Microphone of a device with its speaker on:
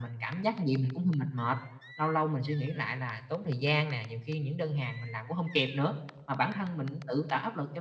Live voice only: none

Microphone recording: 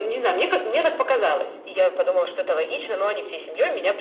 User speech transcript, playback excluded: none

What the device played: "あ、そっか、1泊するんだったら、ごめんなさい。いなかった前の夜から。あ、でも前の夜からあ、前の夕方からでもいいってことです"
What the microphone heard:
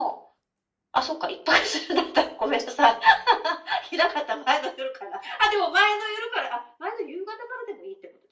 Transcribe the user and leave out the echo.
none

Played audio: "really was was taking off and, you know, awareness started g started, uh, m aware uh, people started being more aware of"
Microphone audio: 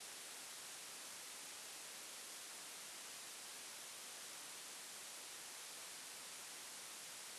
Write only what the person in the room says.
none

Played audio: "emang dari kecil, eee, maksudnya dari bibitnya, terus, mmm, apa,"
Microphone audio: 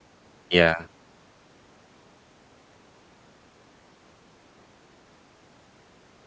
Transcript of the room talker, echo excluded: Iya.

